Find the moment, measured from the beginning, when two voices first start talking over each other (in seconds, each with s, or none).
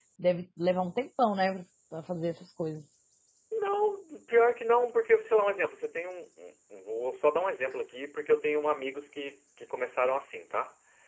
none